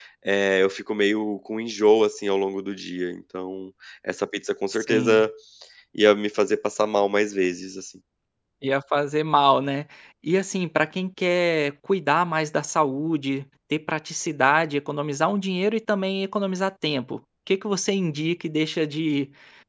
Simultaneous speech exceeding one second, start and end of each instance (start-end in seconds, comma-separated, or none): none